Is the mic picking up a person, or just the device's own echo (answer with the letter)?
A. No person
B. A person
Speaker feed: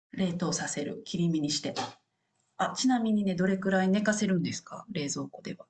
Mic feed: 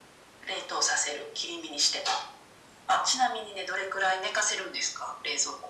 A